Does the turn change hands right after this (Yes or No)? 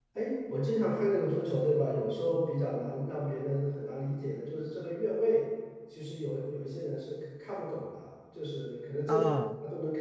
No